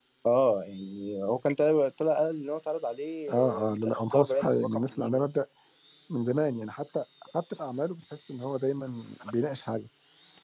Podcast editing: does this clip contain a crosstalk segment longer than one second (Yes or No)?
Yes